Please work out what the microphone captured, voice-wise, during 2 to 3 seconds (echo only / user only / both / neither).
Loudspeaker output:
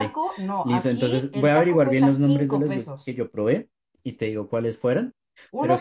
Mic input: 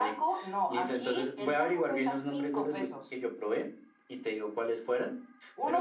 echo only